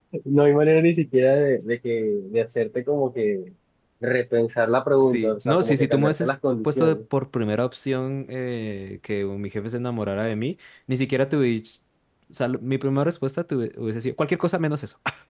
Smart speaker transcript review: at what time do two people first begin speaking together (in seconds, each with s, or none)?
5.1 s